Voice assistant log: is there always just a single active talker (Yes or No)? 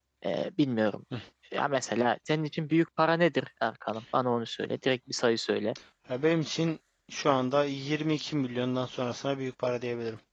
Yes